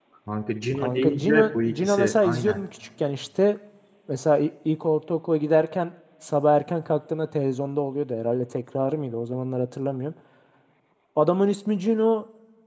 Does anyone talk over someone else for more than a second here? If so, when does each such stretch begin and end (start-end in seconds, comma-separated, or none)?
0.8-2.6